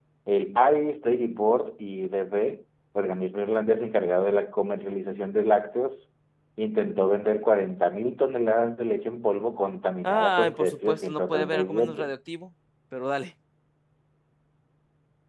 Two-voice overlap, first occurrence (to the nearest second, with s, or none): 10 s